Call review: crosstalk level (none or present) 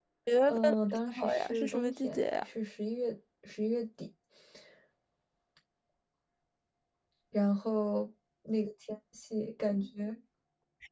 present